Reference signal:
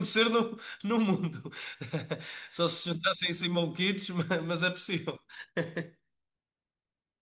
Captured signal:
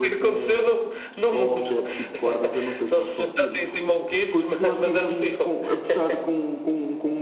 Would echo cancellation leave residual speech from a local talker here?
Yes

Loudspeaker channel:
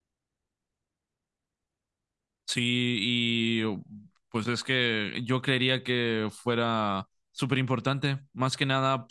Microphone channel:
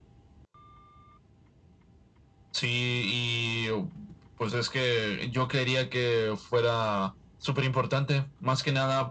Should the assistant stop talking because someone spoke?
No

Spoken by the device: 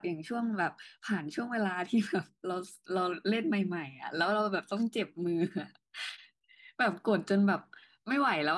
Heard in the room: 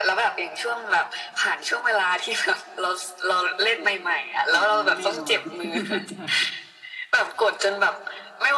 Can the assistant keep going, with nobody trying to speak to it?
No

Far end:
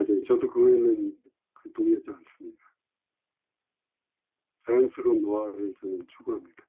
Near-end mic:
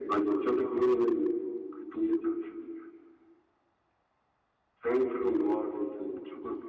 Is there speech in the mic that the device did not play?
No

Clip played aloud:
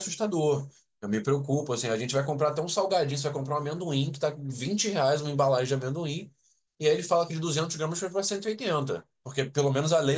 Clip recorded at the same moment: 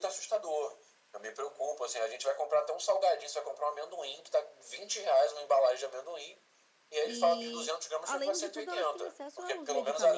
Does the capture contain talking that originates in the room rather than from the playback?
Yes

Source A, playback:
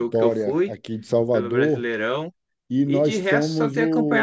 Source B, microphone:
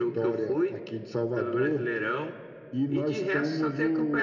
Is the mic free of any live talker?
Yes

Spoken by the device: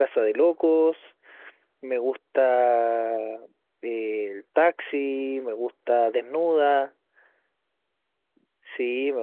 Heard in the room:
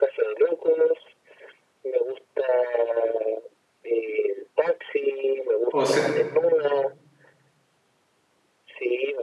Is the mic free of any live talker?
No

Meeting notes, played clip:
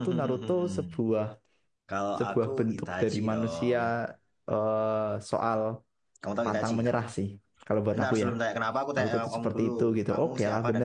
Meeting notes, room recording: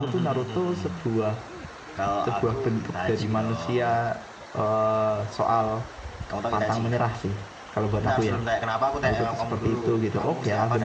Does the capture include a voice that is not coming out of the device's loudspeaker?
No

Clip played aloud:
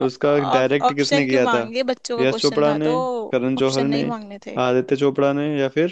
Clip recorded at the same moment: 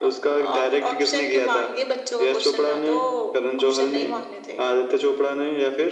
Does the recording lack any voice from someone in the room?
Yes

